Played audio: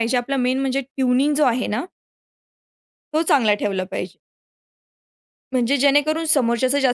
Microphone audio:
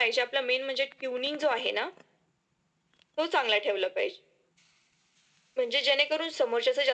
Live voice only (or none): none